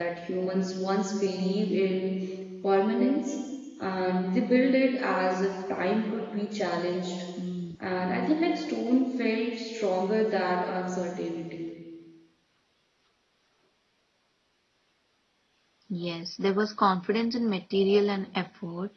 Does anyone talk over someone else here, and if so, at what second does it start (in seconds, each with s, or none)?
none